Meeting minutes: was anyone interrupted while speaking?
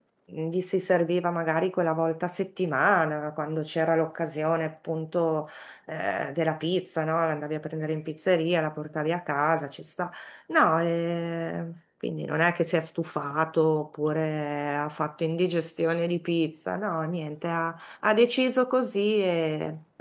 No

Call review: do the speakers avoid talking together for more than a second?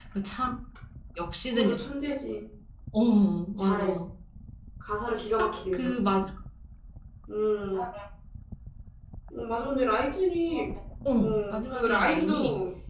No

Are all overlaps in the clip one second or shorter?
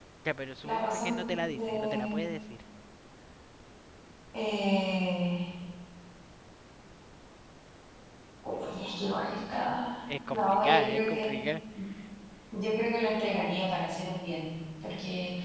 No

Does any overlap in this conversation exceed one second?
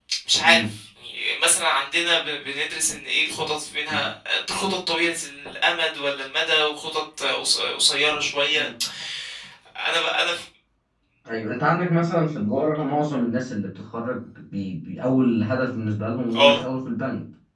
No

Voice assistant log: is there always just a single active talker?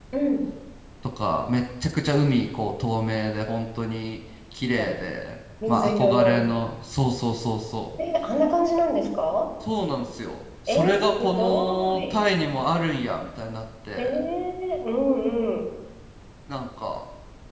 No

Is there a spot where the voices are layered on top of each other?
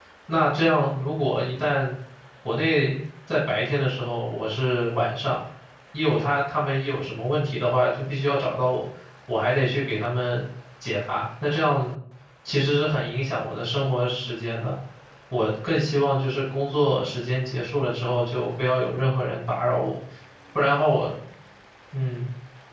No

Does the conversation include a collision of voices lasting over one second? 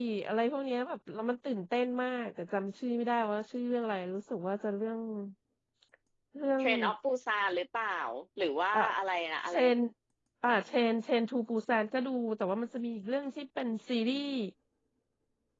No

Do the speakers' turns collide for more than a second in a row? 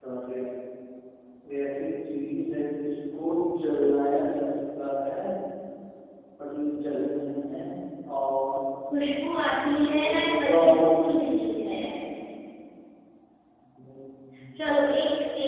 Yes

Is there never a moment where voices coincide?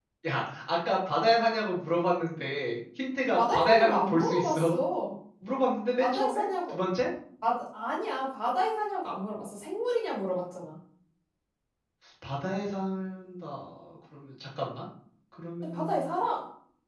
No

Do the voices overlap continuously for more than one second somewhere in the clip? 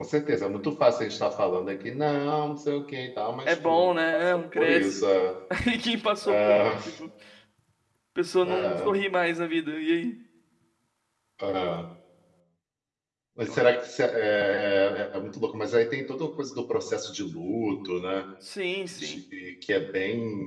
Yes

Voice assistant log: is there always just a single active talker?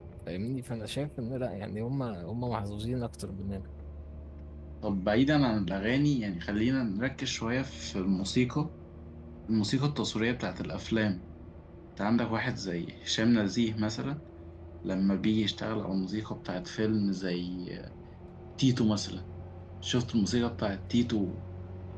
Yes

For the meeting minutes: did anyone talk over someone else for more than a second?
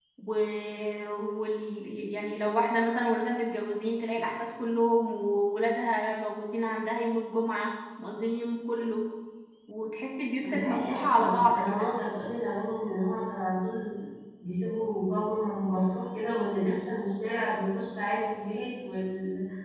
Yes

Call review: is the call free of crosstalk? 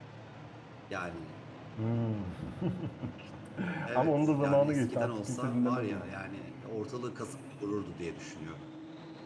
No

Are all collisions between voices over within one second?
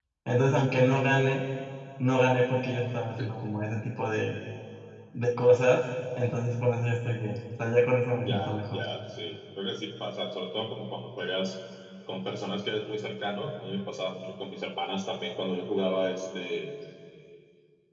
Yes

